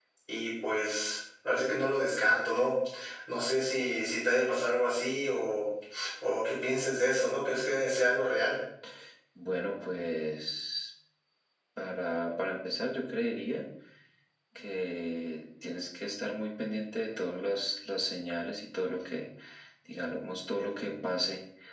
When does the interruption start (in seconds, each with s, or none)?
none